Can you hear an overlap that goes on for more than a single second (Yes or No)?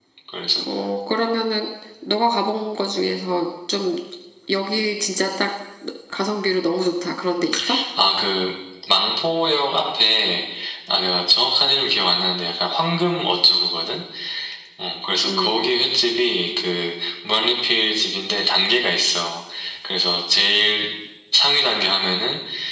No